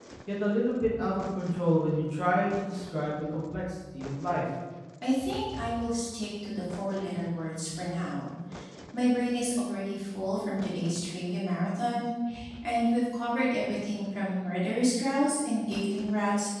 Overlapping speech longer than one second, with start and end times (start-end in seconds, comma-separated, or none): none